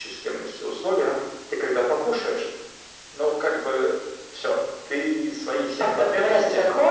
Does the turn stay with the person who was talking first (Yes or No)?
No